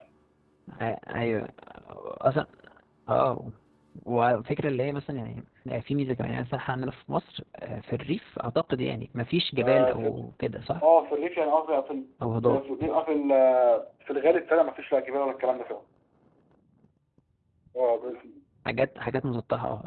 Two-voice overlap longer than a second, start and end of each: none

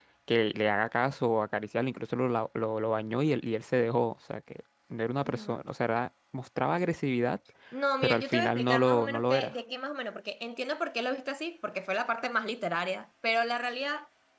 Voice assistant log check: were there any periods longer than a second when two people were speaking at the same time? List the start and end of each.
8.0-9.5

